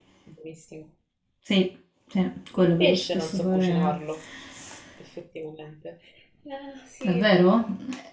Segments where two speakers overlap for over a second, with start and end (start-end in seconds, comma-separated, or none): 2.6-4.0